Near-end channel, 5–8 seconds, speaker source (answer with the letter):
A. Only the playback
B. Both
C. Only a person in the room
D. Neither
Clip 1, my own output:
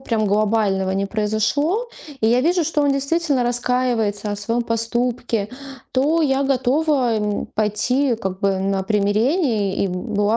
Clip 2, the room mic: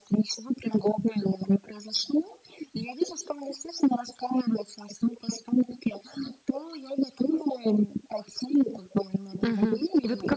A